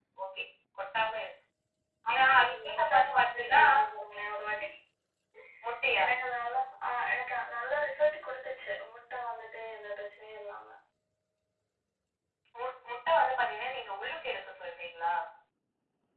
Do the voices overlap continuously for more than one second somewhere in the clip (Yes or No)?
Yes